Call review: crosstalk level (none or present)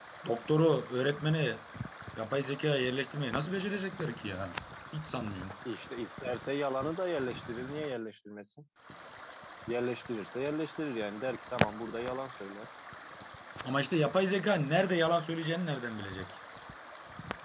none